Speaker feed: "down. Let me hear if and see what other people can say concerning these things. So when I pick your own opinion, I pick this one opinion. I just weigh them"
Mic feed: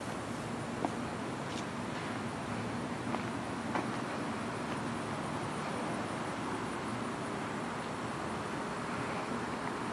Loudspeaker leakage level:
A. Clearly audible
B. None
B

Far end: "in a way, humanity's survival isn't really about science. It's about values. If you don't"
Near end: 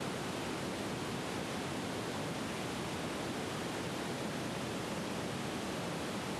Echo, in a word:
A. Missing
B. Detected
A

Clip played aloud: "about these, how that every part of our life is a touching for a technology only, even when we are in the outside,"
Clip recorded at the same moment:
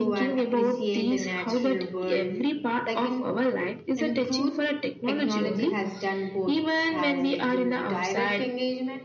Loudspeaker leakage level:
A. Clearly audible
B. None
A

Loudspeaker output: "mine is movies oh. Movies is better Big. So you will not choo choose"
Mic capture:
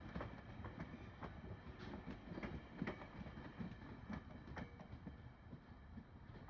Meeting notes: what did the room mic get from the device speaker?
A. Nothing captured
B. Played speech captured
A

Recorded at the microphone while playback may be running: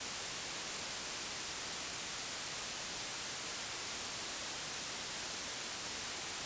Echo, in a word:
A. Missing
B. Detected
A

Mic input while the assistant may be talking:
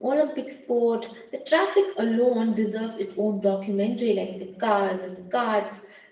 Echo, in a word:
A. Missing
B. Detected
A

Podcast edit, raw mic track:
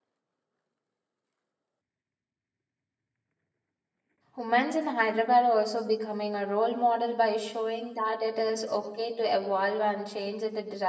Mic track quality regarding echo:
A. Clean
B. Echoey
A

